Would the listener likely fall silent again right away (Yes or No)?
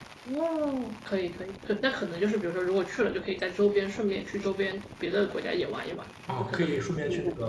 No